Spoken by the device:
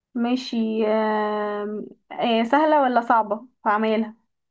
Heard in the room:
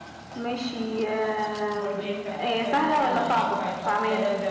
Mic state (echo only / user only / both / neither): both